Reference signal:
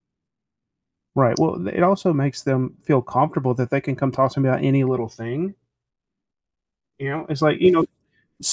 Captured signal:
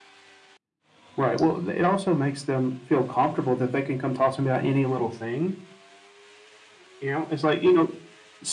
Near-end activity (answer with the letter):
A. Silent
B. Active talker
A